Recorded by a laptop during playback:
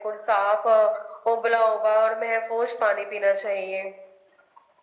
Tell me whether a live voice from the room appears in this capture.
No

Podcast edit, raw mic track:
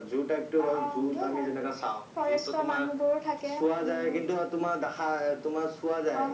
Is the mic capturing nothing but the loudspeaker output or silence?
Yes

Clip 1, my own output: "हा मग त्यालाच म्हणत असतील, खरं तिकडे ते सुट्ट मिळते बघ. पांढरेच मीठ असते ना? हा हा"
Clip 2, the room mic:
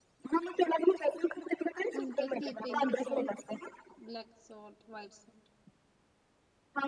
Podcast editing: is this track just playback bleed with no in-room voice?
No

